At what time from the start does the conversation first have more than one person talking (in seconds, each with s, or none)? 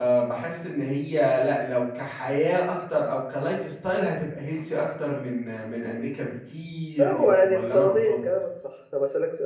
7.0 s